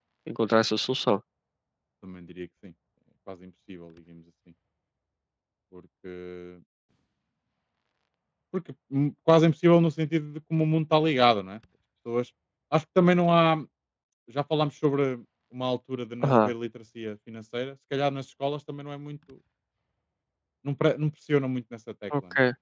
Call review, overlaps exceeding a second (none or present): none